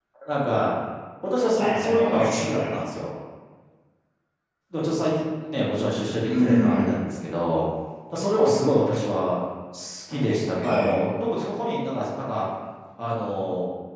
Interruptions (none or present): present